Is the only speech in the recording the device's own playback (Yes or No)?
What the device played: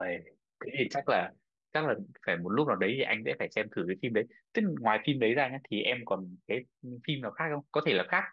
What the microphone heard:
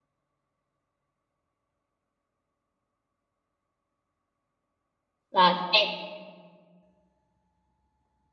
No